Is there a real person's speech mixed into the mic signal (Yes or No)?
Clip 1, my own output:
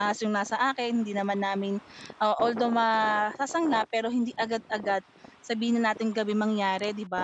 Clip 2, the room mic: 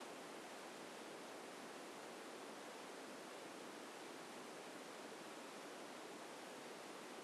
No